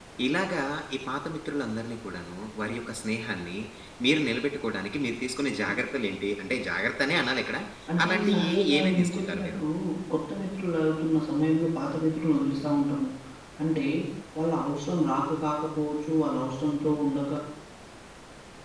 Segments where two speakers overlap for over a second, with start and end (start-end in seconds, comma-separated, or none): 8.0-9.6